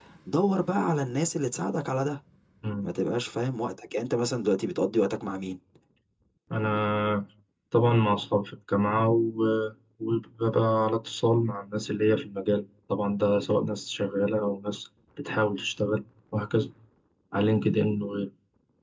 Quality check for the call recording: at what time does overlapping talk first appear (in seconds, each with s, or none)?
none